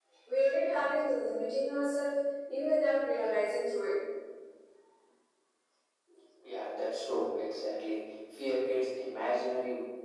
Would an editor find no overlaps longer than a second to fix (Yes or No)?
Yes